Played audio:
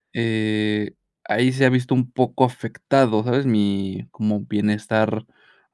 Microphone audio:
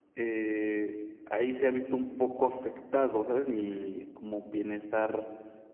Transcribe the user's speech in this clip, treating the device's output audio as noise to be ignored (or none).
Ujú.